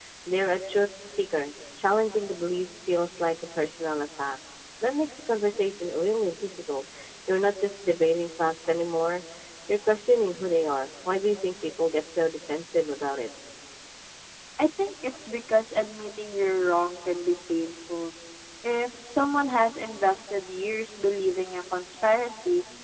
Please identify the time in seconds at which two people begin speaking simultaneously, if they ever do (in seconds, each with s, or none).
none